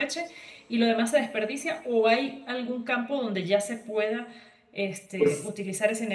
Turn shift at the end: No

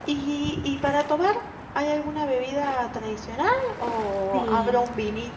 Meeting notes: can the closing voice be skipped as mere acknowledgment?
Yes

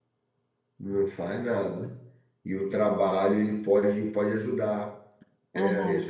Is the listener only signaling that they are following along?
Yes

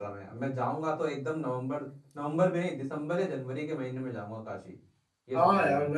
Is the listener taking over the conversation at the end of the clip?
Yes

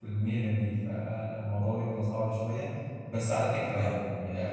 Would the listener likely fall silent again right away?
Yes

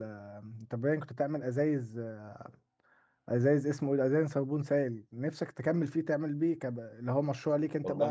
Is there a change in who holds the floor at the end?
Yes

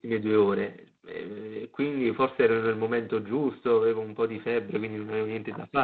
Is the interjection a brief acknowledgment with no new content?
No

